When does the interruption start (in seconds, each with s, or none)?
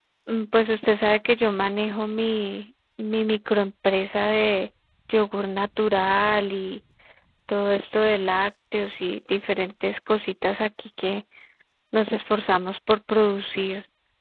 none